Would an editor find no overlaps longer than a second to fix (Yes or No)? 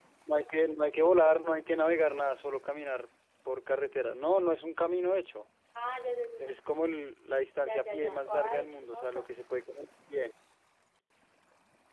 No